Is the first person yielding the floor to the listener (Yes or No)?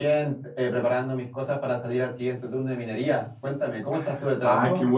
Yes